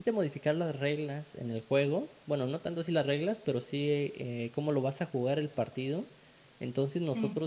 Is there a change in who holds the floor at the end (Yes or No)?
No